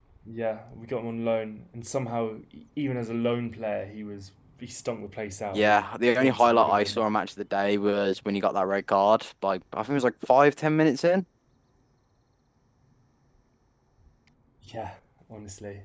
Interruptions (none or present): present